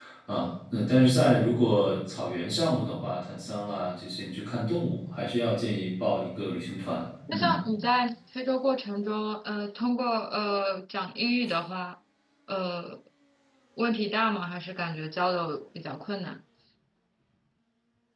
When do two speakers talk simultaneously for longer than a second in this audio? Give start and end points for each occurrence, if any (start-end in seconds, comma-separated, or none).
none